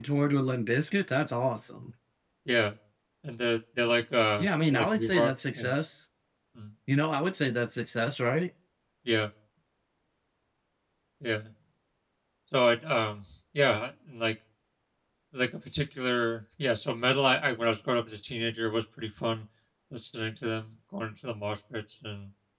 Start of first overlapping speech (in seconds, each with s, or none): 4.4 s